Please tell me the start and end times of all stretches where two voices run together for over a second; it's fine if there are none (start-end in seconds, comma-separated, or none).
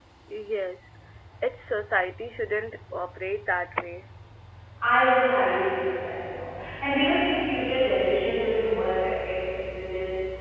none